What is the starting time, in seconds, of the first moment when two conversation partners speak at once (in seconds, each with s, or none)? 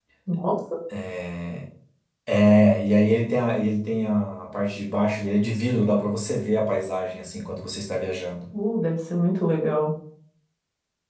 none